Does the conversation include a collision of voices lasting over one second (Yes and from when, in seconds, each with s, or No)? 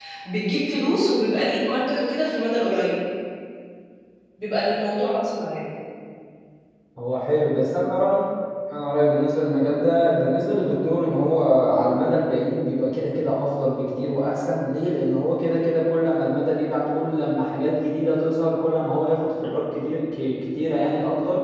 No